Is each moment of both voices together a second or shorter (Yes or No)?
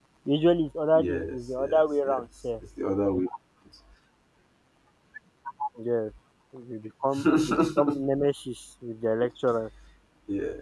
No